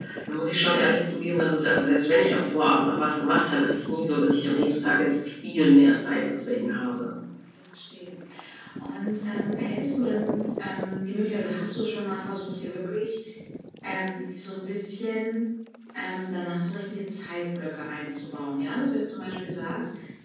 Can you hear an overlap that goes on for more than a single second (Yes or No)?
No